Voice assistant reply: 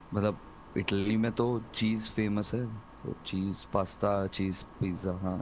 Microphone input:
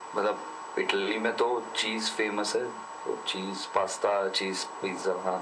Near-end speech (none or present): none